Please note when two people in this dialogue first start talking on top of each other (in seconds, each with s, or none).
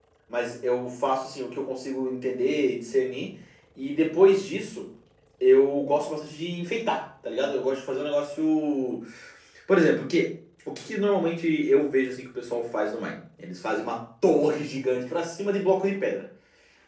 none